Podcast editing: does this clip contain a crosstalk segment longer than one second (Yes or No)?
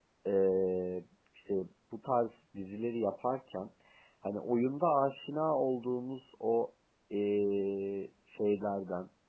No